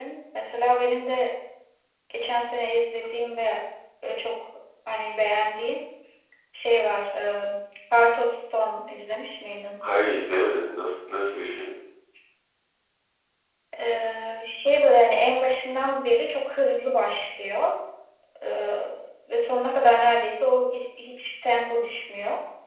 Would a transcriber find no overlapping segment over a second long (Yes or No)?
Yes